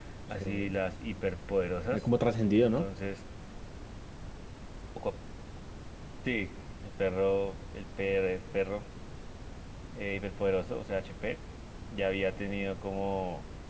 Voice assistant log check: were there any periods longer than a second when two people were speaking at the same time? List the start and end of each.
none

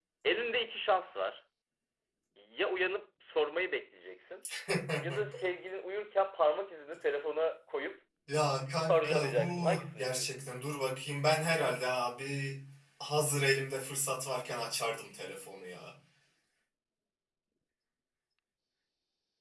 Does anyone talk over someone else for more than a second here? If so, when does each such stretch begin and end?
8.9-10.4

